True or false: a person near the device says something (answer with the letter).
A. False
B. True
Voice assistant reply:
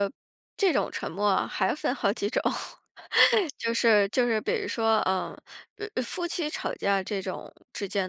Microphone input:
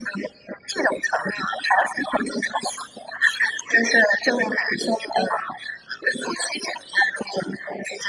A